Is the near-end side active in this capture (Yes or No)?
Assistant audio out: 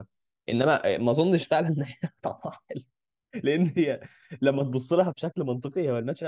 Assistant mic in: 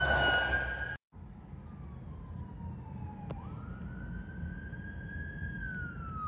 No